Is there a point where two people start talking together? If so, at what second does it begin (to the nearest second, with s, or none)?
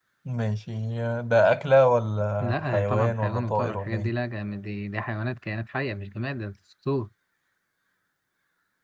2 s